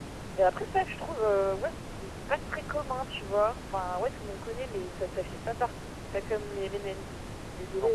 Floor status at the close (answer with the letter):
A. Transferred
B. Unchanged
A